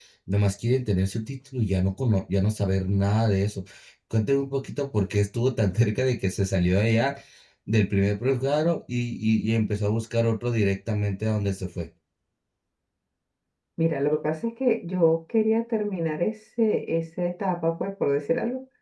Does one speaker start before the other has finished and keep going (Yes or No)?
No